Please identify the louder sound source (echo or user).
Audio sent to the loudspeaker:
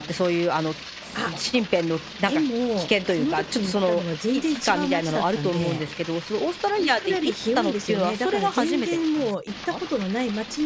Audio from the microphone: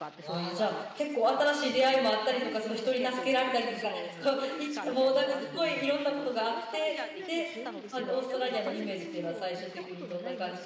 user